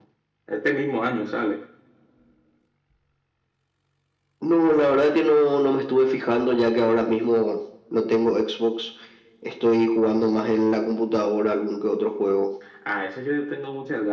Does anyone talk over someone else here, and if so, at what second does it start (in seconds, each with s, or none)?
none